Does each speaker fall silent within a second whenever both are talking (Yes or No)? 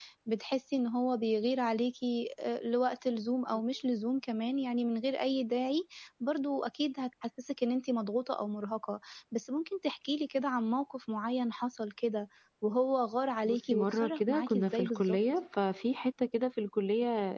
No